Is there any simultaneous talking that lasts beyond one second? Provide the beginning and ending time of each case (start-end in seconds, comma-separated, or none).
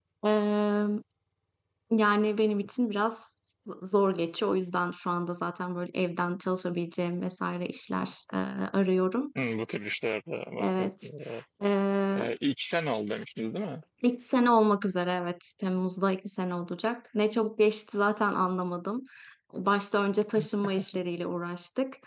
none